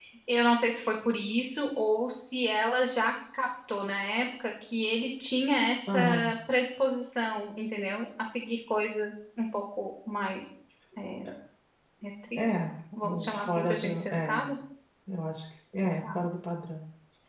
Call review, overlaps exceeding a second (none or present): present